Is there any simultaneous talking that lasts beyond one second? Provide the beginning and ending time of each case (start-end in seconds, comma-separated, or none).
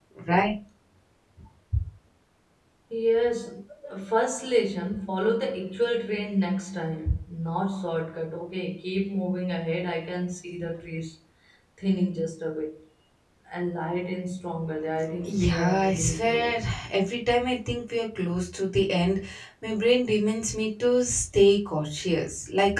15.2-16.6